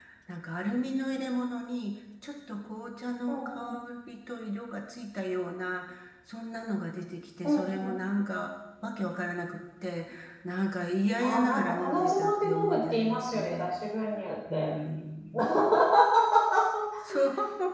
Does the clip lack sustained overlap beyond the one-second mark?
No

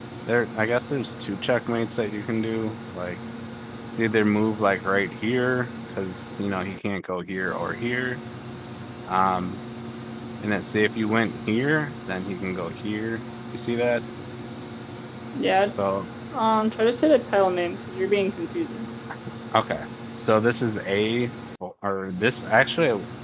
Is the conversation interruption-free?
Yes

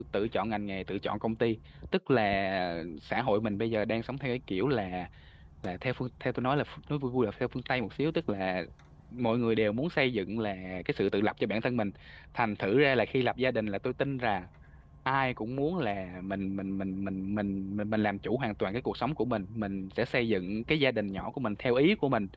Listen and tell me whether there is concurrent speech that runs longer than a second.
No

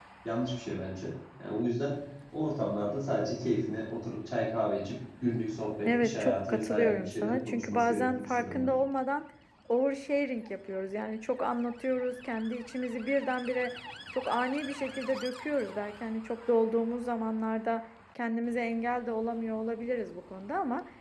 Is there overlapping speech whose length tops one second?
Yes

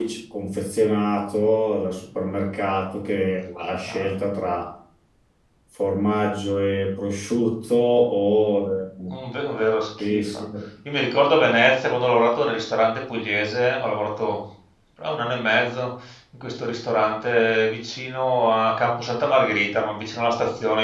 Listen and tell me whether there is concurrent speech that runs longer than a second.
No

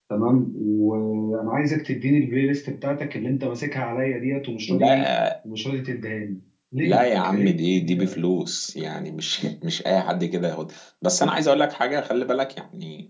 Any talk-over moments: Yes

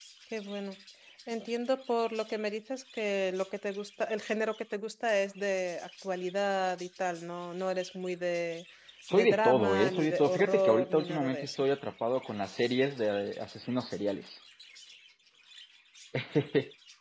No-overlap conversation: No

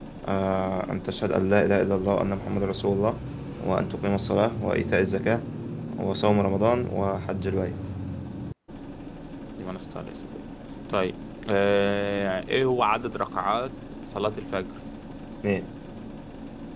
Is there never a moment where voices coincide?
Yes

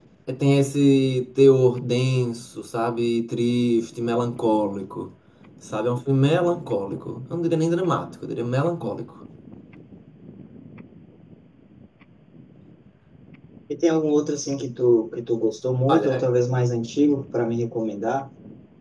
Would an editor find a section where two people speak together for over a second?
No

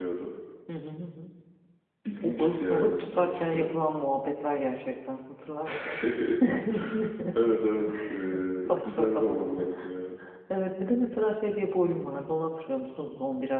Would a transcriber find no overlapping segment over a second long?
No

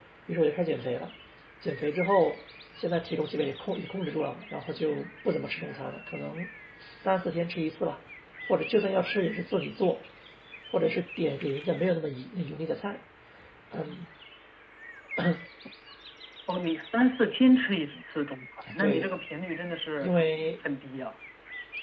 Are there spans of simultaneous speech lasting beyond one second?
No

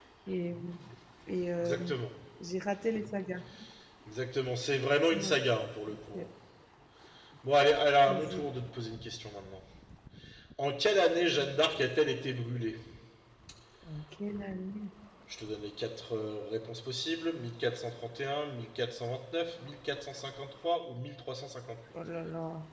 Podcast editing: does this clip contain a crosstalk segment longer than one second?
No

